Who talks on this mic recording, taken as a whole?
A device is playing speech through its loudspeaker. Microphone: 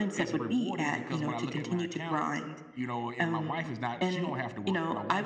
both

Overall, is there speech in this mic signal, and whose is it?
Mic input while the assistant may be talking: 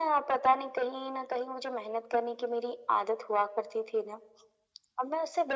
echo only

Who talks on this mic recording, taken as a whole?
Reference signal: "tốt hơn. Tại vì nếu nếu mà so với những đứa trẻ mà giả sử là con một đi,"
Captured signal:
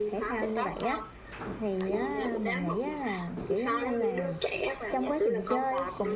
both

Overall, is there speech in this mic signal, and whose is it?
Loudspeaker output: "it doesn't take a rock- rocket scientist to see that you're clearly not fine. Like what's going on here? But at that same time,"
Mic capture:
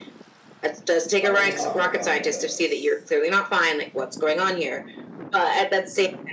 both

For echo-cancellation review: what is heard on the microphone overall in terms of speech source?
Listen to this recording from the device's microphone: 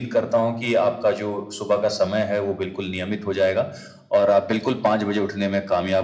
echo only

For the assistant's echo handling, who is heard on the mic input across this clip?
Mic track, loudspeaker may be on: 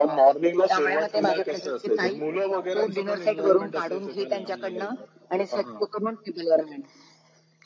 echo only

